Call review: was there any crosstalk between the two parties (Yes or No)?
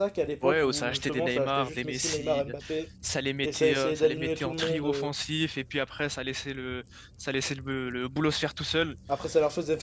Yes